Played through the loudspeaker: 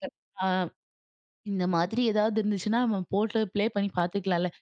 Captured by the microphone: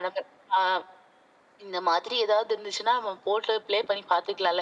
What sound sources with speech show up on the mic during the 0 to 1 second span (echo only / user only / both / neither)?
echo only